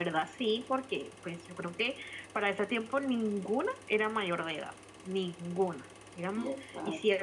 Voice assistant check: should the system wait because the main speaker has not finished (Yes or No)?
Yes